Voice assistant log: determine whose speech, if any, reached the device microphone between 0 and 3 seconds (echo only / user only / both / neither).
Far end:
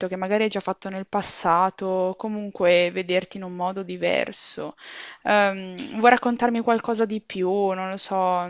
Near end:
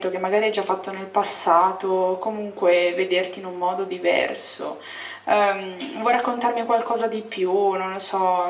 echo only